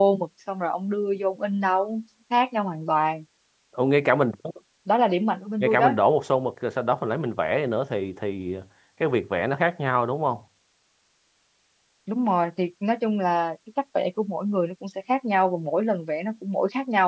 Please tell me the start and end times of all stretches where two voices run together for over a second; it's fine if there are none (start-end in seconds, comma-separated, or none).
none